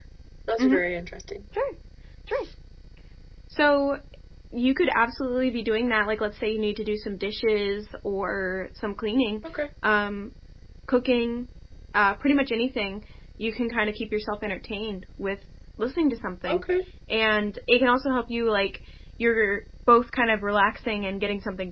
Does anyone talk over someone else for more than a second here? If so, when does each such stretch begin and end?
none

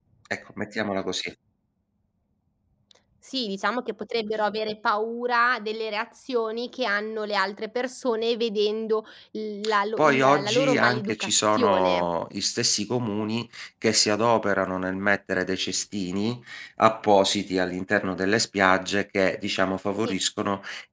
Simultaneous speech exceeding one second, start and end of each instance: 10.0-12.0

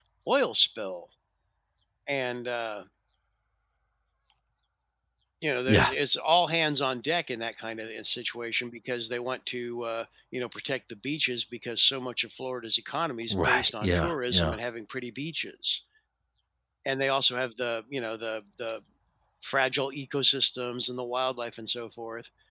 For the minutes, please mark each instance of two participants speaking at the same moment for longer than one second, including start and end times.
13.3-14.6

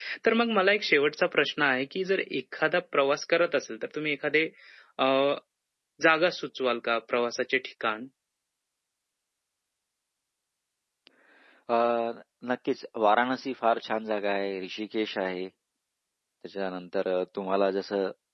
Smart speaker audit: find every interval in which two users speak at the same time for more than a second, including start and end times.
none

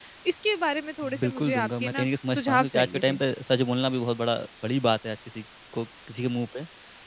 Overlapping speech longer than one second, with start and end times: 1.2-3.2

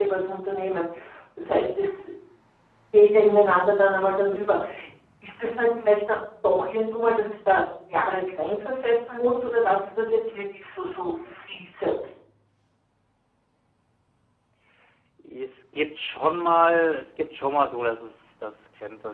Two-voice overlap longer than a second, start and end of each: none

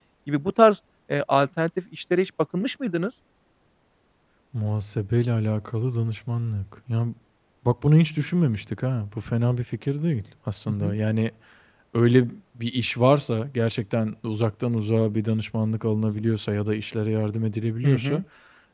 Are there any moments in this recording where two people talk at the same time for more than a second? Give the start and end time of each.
none

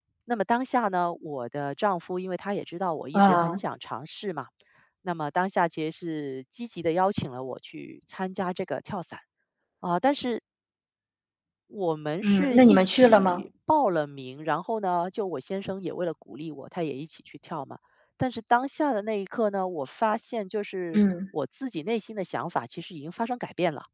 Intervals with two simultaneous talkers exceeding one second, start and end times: 12.2-13.4

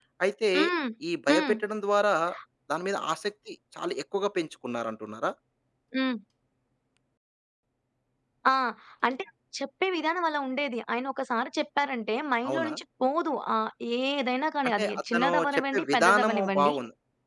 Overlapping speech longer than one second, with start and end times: 14.8-16.7

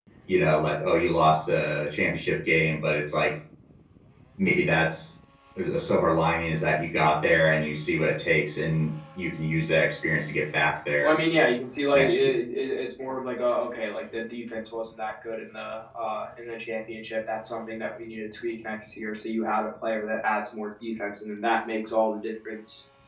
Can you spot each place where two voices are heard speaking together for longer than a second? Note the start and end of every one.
none

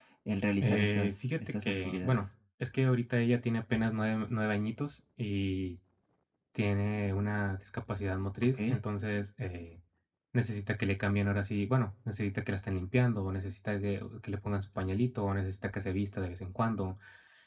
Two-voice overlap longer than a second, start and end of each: 0.6-2.2

